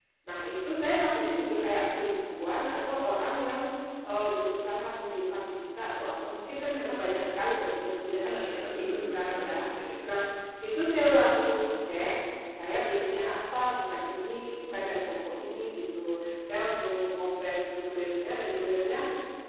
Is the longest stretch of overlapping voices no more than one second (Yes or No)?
No